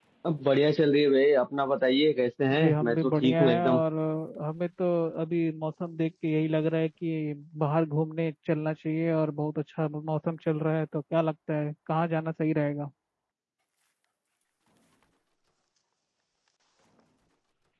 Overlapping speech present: Yes, from 2.5 s

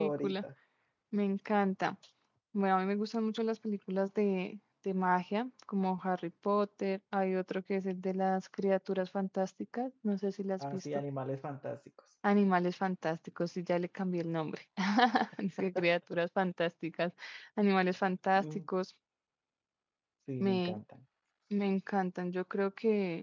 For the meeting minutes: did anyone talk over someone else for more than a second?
No

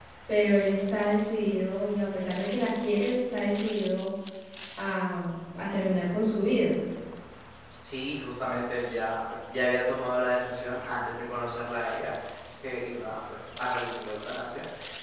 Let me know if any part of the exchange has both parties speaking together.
No

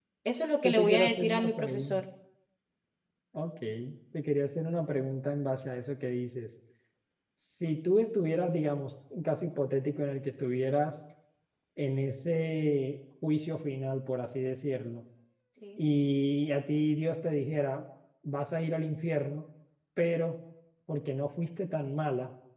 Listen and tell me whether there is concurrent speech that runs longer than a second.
Yes, from 0.6 s

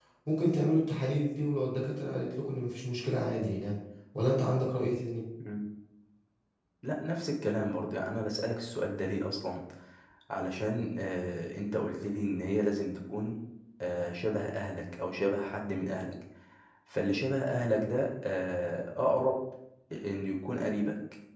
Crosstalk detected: No

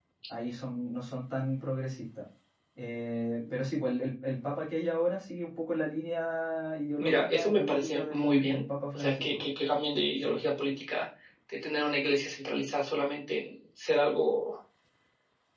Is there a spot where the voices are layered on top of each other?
Yes, from 7.0 s

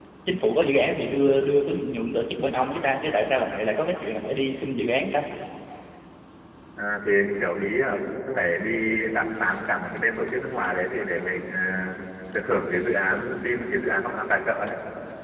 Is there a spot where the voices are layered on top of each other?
No

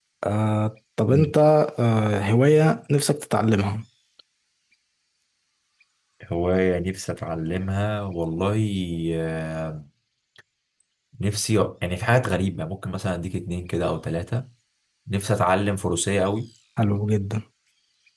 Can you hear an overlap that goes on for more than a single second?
No

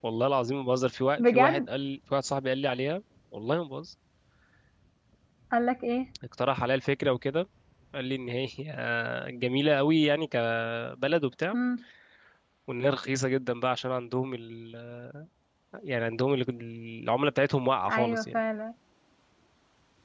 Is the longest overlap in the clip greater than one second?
No

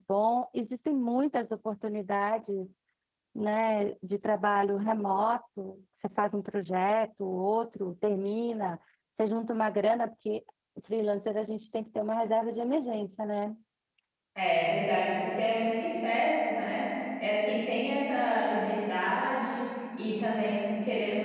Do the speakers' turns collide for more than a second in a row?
No

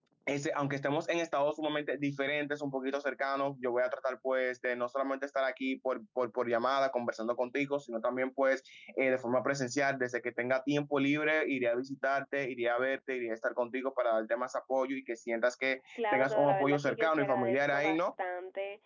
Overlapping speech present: Yes, from 16.0 s

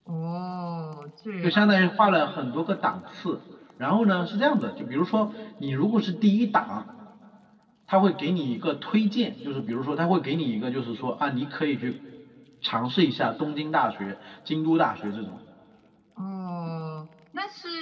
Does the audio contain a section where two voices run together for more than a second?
No

